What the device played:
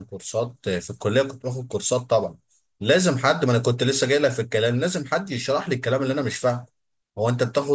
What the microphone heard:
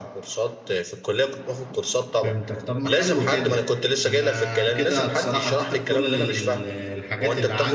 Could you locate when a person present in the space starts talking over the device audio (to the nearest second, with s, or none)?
2 s